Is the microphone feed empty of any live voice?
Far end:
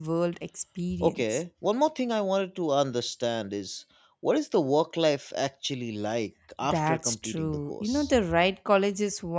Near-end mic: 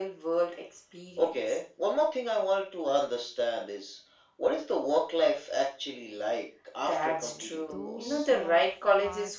No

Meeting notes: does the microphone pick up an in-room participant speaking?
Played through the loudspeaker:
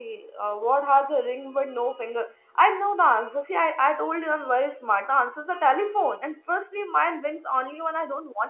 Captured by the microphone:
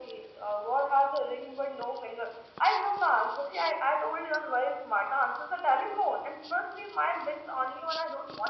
No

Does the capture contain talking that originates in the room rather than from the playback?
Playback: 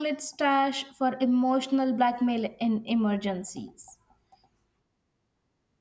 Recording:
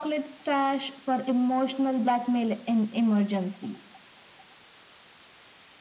No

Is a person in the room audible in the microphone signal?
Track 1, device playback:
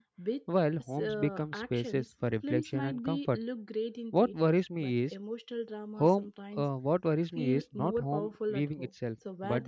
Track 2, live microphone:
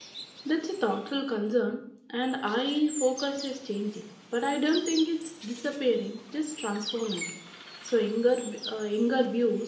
Yes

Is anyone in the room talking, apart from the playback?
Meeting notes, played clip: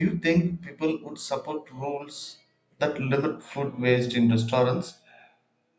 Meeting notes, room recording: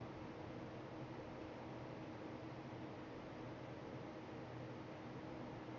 No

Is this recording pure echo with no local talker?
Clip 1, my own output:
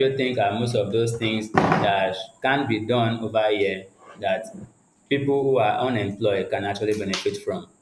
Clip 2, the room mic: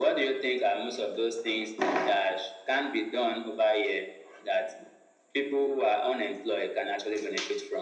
Yes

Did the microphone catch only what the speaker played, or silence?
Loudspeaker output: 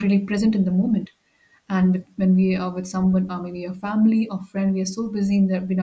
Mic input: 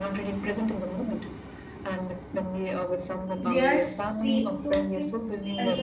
No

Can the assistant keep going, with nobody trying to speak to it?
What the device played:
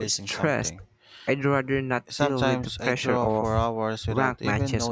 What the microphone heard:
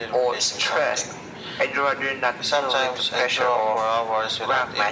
Yes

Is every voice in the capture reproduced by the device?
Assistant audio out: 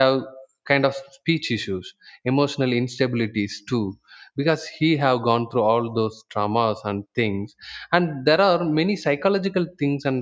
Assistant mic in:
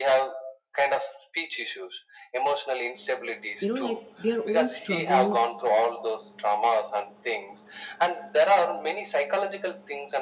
No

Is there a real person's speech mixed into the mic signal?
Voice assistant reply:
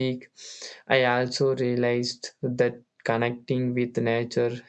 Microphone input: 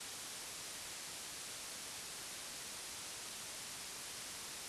No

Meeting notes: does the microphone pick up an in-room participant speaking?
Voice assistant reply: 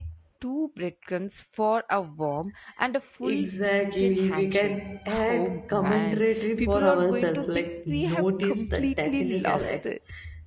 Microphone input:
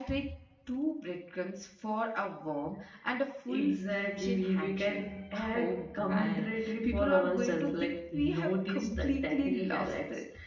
No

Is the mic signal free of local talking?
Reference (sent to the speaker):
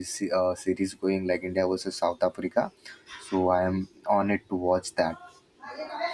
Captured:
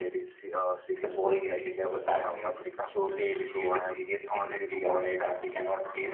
No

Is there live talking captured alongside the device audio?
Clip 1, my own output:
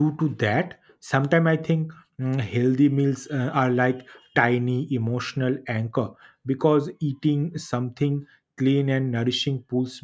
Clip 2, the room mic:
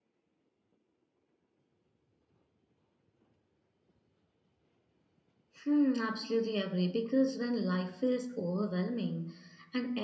Yes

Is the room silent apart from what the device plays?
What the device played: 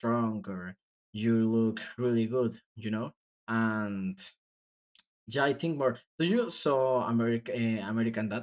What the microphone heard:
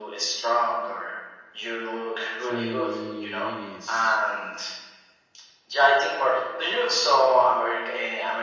No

